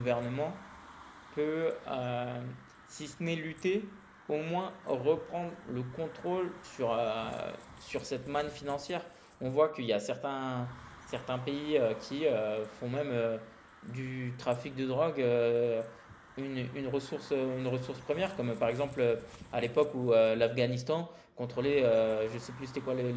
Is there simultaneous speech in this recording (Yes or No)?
No